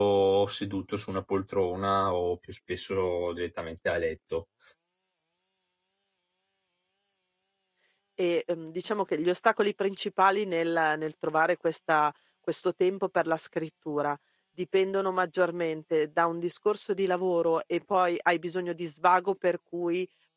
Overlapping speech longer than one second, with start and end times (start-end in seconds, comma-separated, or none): none